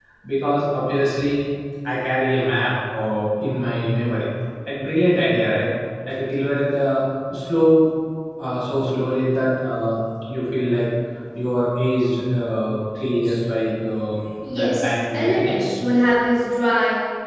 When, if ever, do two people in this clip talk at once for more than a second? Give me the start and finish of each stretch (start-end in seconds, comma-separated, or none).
14.5-15.8